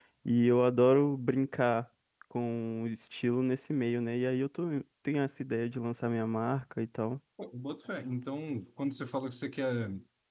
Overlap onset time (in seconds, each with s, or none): none